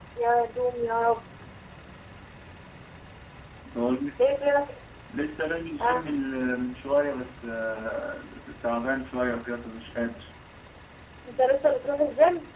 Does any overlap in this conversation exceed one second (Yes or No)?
No